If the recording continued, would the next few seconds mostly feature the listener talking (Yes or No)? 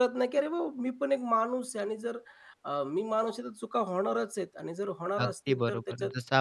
Yes